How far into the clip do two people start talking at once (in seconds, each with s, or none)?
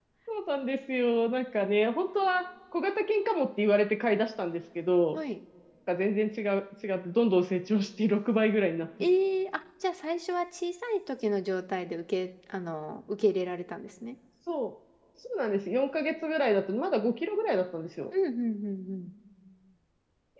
none